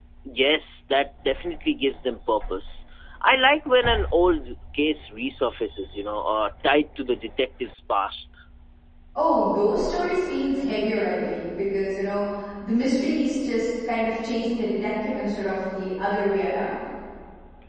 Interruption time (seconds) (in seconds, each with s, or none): none